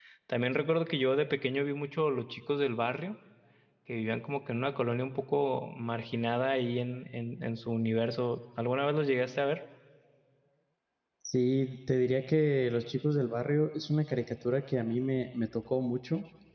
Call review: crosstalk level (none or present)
none